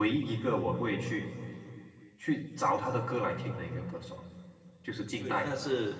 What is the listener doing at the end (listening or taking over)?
taking over